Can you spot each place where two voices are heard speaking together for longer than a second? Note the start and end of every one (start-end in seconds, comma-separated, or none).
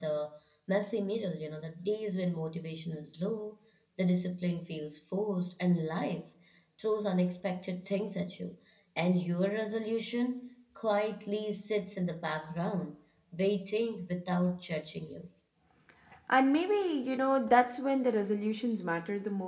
none